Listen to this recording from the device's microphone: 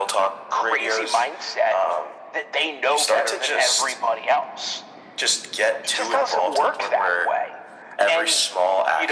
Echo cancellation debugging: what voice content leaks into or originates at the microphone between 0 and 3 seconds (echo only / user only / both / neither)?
echo only